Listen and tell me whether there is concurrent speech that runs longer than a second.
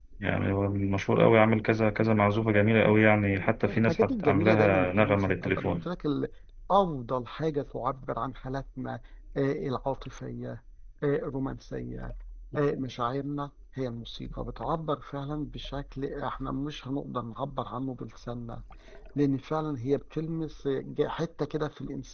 Yes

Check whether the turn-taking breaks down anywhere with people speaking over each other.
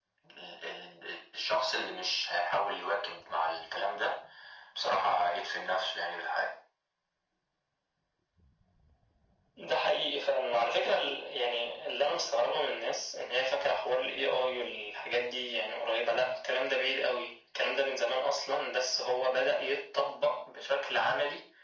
No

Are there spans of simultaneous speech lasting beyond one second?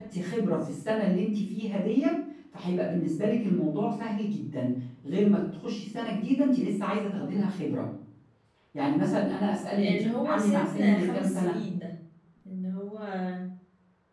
Yes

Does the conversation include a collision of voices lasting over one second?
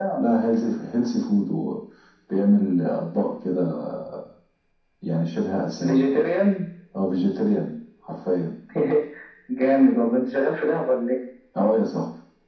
No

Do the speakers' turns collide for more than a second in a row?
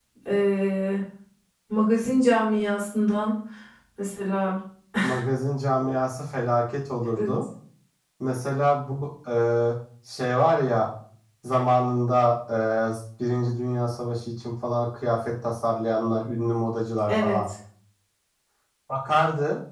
No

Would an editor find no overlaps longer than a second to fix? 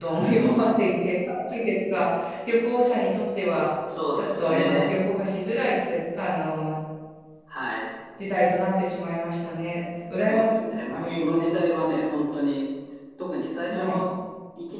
No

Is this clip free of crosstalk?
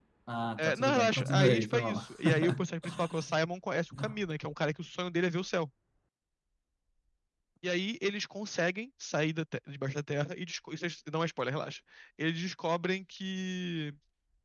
No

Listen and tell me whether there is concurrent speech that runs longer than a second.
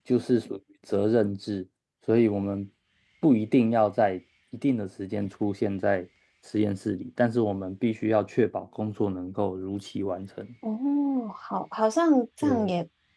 No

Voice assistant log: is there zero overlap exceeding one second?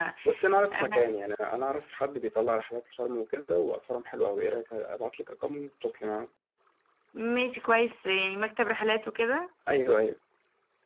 Yes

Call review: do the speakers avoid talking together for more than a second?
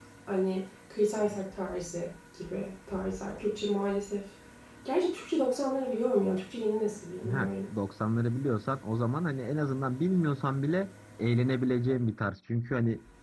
Yes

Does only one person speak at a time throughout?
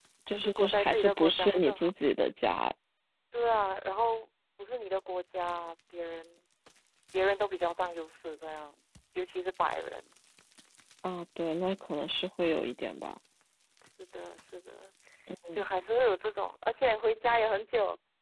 No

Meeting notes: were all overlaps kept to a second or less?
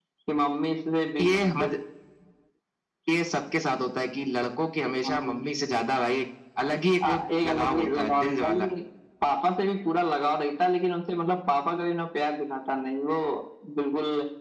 No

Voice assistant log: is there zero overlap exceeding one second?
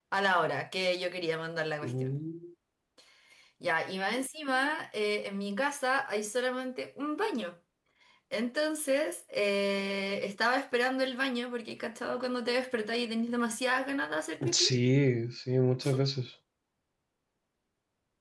Yes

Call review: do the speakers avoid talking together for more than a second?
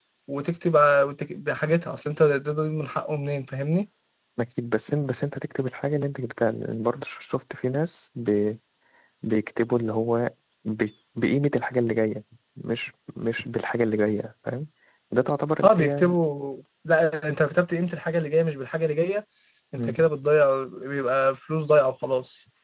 Yes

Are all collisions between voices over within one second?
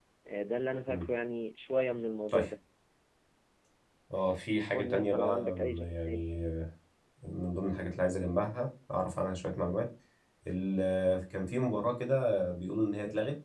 No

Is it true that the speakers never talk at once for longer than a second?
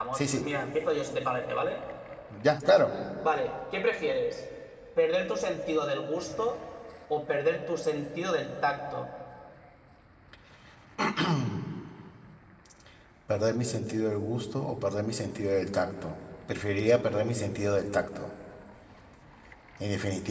Yes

